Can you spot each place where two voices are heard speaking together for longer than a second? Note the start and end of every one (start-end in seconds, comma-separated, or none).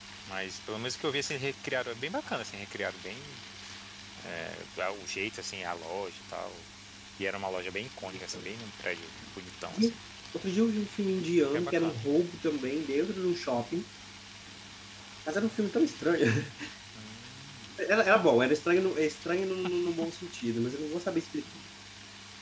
none